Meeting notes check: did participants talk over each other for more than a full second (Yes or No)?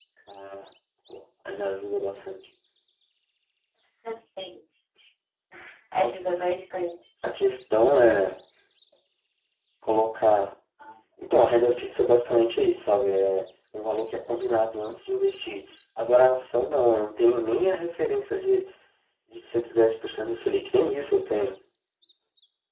No